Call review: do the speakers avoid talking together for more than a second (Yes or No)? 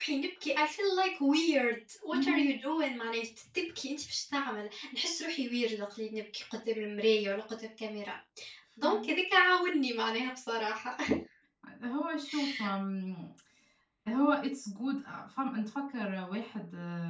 Yes